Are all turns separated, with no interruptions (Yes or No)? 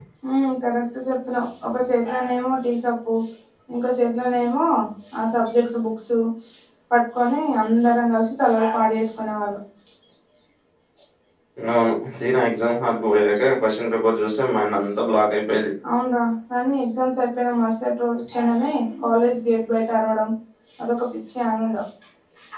Yes